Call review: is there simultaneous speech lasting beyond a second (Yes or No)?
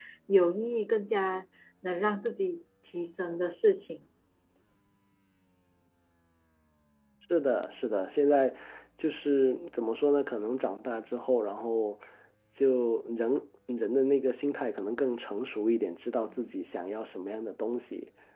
No